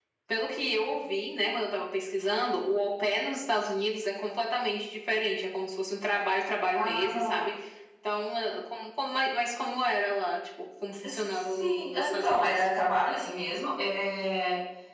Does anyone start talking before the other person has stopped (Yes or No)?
Yes